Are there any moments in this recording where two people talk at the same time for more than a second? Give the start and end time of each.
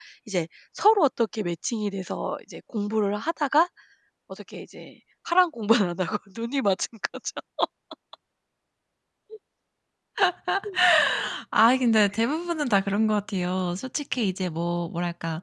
none

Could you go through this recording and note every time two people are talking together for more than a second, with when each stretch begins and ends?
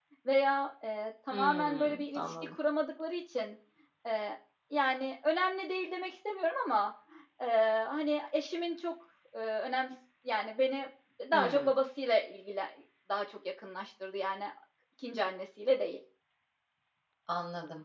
1.3-2.5

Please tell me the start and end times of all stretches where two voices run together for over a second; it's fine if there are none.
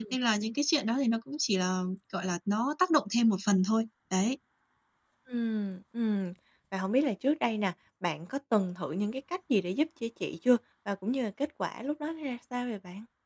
none

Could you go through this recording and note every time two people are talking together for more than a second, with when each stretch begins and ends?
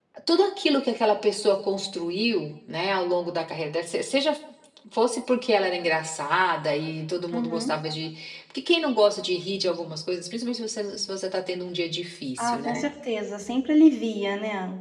none

